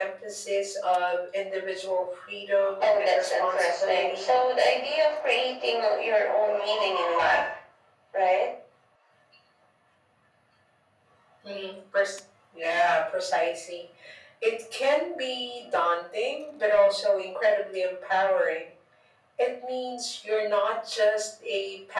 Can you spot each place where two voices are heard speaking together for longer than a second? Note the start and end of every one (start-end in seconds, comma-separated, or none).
2.8-4.3